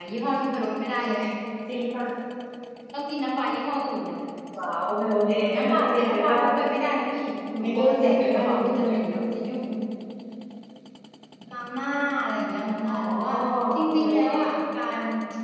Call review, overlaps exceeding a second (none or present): present